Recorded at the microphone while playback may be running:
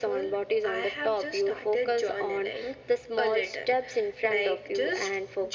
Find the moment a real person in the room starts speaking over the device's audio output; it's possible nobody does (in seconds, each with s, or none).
none